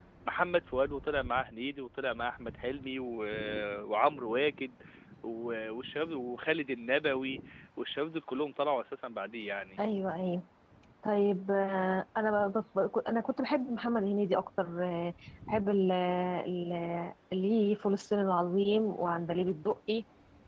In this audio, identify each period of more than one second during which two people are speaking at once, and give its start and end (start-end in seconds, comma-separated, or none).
none